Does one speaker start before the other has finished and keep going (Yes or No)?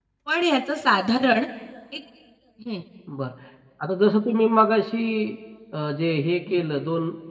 No